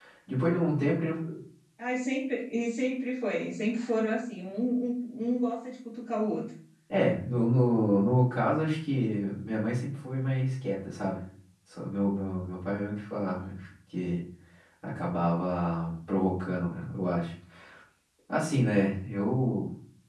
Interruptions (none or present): none